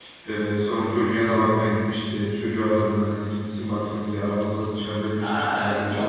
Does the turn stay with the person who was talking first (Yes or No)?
No